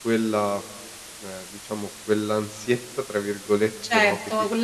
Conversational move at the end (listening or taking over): taking over